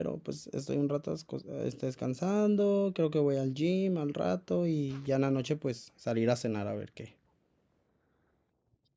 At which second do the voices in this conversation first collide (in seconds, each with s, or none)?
none